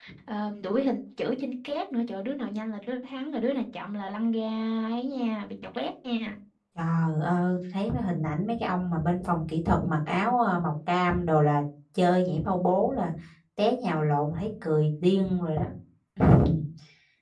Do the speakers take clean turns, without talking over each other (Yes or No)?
Yes